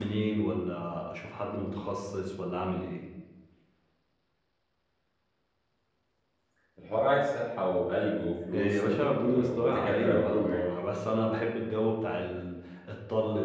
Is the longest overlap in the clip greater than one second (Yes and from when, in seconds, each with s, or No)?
Yes, from 8.5 s